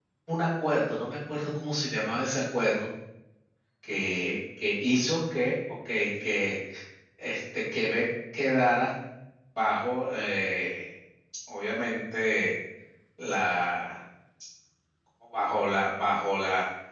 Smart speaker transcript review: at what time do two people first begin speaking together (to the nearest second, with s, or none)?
none